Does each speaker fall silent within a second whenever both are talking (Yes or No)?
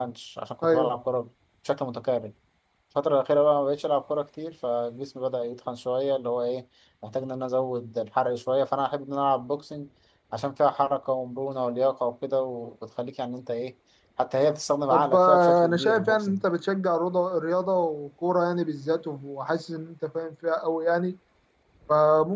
No